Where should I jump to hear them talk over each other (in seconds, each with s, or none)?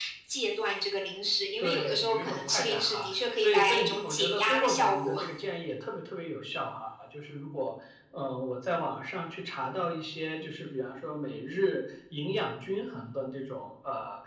1.6 s